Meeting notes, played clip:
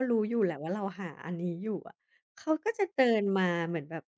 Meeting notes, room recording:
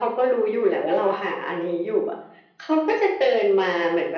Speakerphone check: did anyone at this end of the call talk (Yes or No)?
No